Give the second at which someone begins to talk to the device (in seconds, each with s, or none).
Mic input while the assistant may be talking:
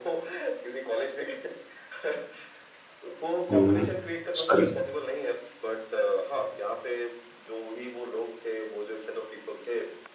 3.5 s